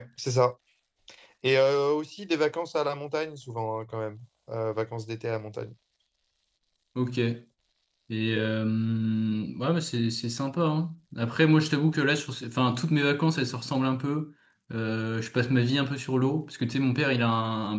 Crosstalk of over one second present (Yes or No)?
No